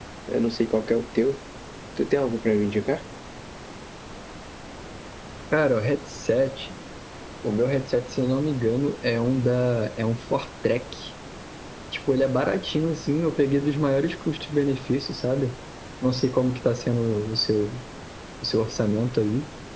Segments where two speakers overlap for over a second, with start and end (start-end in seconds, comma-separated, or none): none